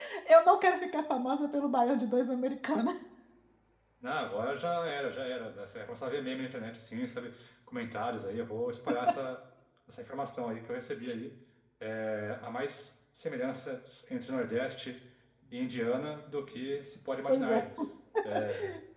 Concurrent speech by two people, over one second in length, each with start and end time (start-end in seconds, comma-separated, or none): none